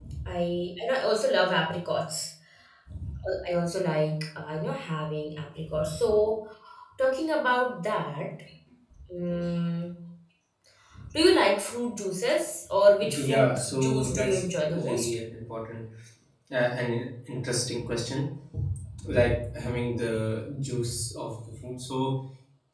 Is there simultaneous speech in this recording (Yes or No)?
Yes